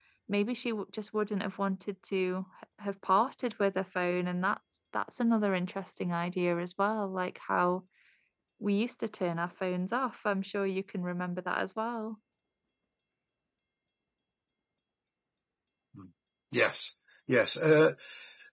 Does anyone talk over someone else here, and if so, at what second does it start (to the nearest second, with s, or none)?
none